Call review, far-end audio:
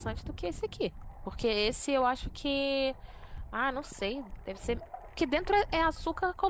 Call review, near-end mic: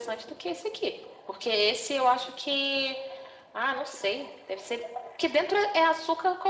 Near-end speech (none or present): none